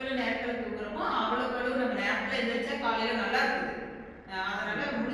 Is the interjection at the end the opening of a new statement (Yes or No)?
No